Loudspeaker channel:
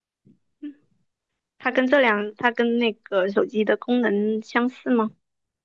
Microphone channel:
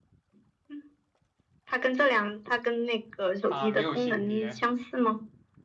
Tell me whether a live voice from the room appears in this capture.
Yes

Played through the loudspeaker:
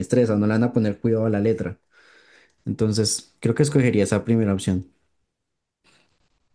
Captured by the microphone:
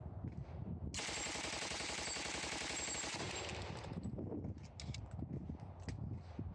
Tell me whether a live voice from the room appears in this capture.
No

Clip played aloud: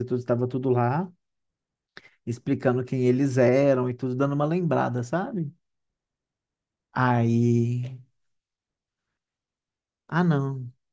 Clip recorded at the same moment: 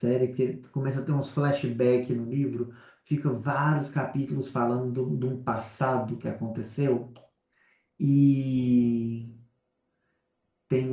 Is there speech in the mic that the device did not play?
Yes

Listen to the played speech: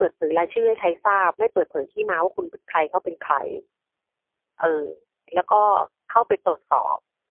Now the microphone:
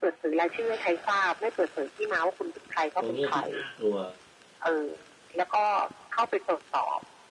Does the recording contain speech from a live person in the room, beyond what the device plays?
Yes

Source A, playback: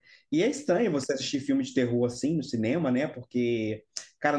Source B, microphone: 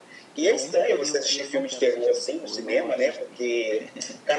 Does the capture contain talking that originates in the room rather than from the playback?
Yes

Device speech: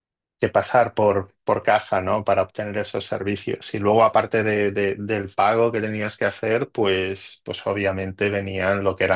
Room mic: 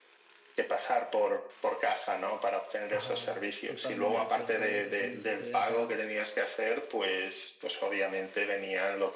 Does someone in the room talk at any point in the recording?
Yes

